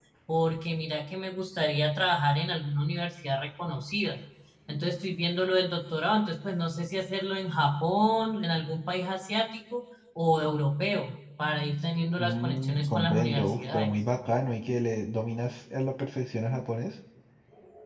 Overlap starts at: 12.2 s

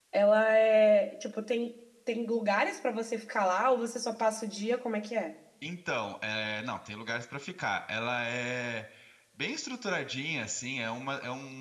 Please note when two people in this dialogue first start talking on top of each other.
none

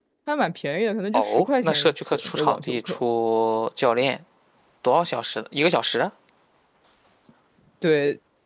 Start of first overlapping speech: 1.1 s

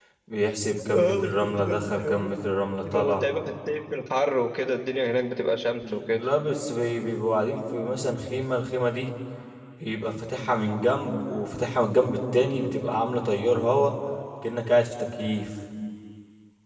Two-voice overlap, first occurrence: 1.0 s

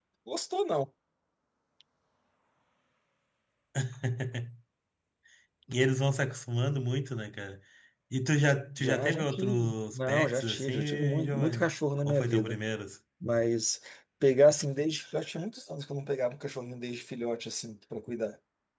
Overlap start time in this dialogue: 8.8 s

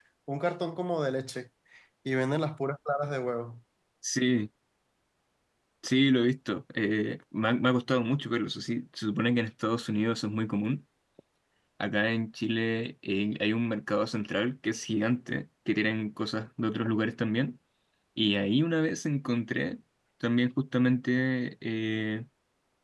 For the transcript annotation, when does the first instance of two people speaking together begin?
none

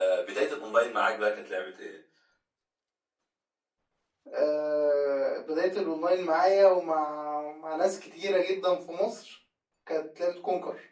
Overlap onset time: none

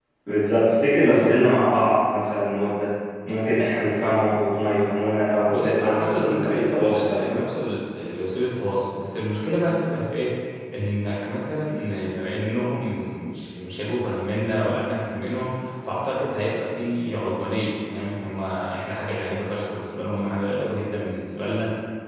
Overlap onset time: 5.5 s

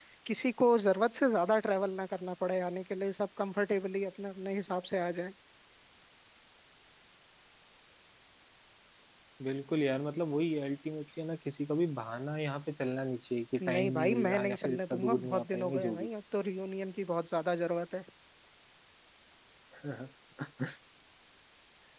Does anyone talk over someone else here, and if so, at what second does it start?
13.6 s

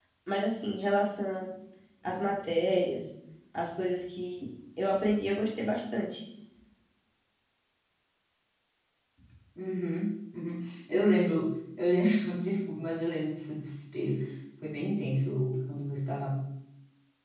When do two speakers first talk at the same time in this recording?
none

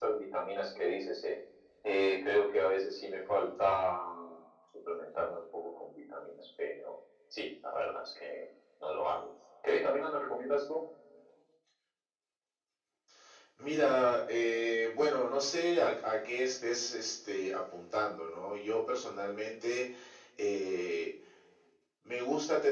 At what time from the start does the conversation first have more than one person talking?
none

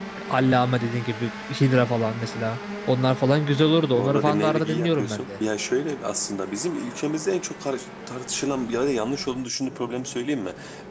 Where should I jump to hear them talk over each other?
4.0 s

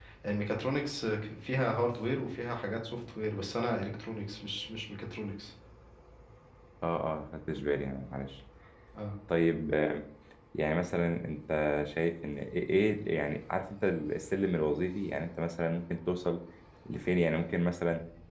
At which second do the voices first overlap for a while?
none

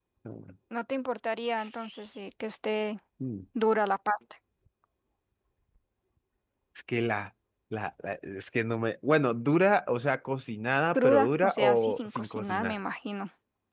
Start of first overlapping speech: 10.9 s

